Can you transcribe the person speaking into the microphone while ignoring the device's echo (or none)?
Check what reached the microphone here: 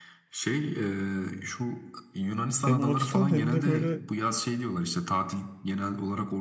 Hem o açıdan hem de böyle